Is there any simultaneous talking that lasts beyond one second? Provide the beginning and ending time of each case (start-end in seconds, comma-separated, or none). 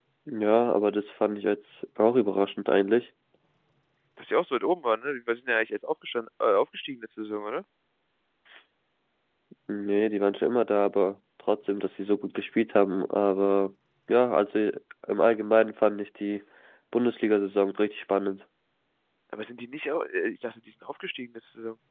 none